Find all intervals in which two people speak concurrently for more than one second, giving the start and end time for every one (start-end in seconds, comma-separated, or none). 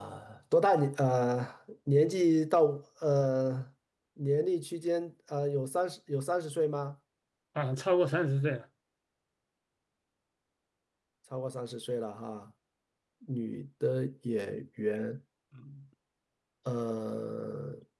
none